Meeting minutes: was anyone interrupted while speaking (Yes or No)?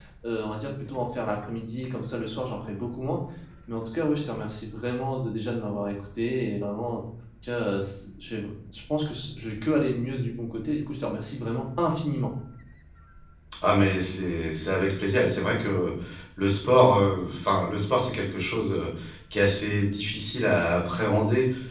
No